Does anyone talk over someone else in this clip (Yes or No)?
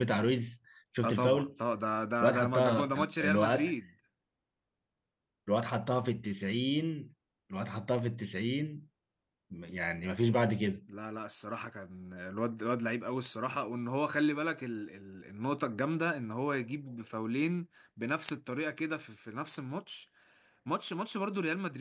Yes